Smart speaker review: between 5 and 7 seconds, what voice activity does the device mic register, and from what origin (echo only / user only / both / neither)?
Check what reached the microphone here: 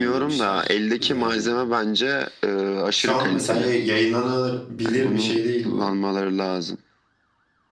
both